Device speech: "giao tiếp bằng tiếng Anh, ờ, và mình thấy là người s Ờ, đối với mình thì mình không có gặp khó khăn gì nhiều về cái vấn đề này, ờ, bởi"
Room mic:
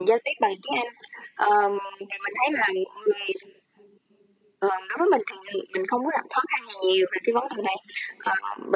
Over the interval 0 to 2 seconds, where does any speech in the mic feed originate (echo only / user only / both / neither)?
echo only